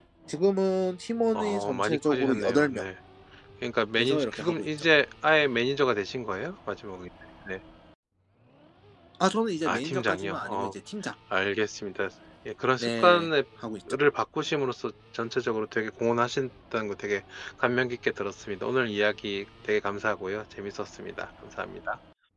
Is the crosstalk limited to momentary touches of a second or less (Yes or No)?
No